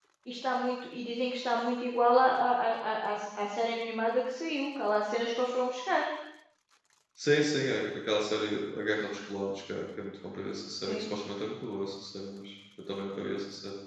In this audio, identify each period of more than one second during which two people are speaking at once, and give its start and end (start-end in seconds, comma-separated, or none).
none